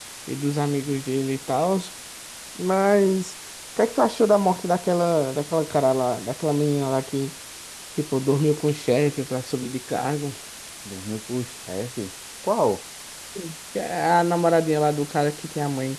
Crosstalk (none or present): none